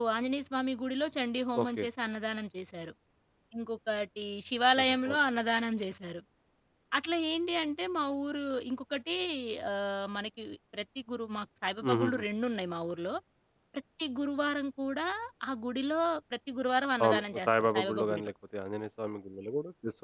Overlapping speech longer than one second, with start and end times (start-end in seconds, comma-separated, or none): 17.1-18.3